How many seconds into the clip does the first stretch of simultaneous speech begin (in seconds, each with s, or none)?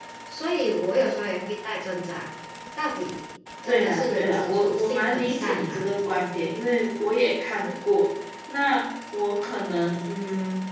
3.7 s